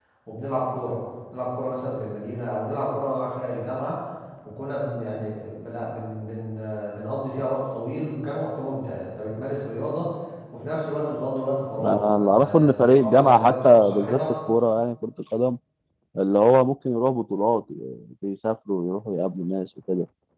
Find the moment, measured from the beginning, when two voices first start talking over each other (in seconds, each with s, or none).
11.8 s